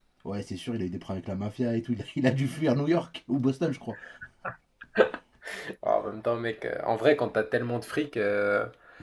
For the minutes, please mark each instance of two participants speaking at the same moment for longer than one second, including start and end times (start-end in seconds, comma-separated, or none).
none